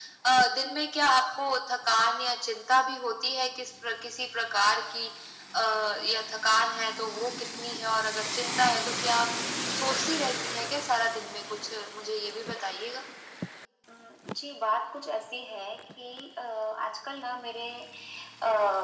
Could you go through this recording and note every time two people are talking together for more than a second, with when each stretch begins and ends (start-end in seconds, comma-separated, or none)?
none